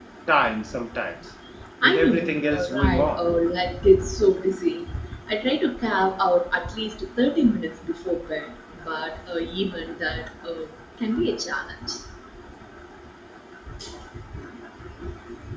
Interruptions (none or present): present